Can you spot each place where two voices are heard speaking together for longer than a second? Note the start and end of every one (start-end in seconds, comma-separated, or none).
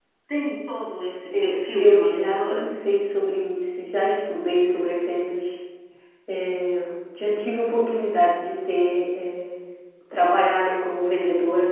1.3-2.7